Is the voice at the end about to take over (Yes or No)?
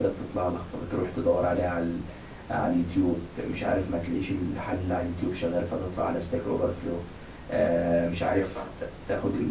No